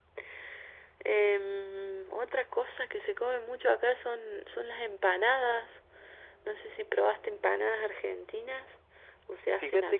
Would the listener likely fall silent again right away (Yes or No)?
No